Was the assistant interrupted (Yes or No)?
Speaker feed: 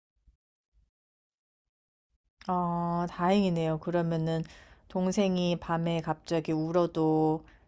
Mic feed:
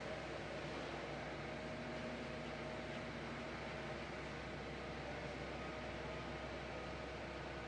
No